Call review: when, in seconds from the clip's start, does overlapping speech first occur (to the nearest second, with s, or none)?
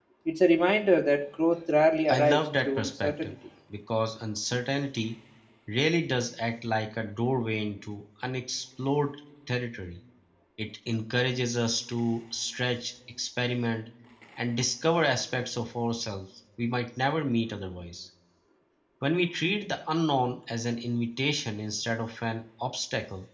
2 s